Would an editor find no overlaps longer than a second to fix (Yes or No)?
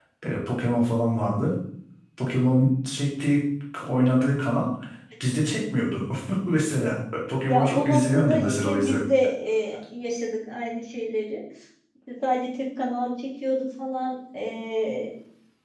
No